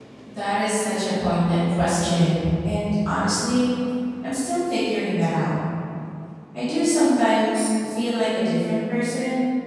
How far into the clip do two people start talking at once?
none

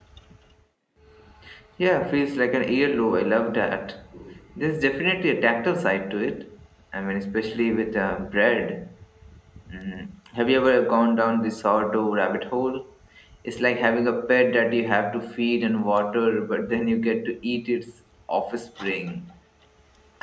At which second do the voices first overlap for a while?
none

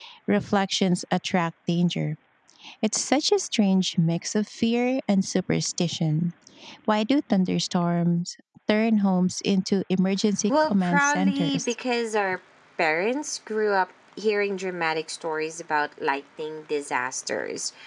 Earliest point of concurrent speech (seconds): 10.5 s

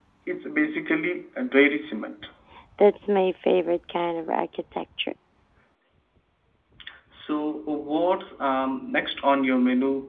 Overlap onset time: none

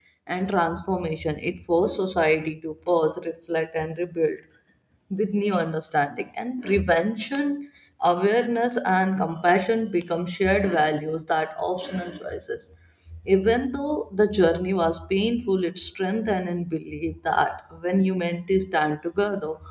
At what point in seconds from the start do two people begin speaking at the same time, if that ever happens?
none

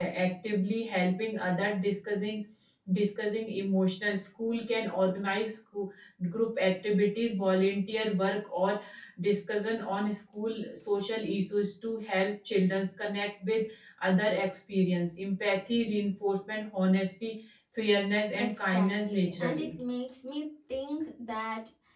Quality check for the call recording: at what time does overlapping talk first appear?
18.4 s

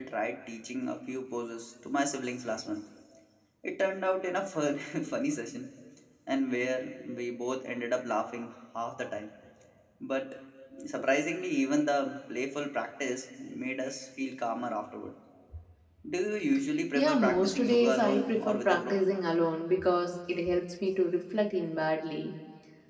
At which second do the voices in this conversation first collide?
16.9 s

